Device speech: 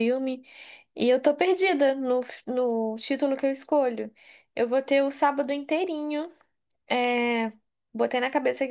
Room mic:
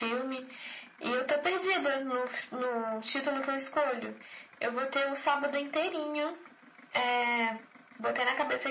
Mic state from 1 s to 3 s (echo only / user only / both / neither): echo only